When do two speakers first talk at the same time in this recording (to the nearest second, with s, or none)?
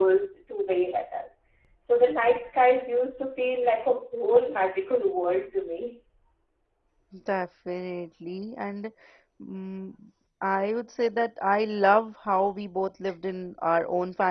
none